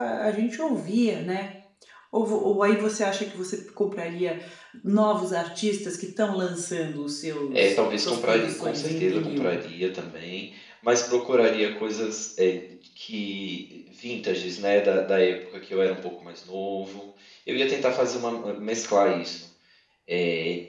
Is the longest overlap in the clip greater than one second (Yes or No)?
Yes